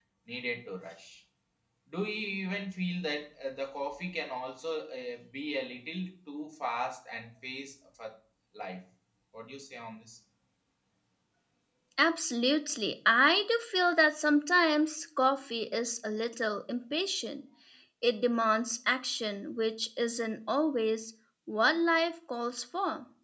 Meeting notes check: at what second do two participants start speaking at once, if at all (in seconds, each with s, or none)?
none